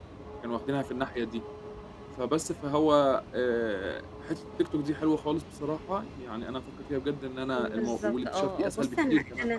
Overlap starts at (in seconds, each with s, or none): 7.6 s